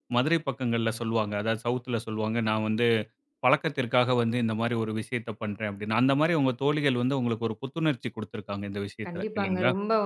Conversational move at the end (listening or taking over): taking over